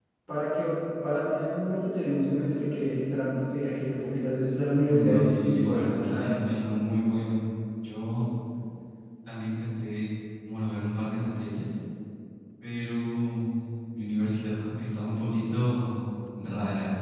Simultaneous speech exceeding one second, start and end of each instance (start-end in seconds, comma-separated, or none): 4.9-6.4